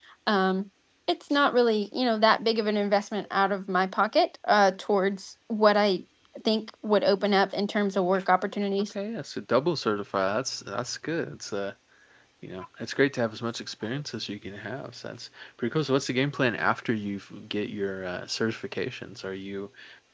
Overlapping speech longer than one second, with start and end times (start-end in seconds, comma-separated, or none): none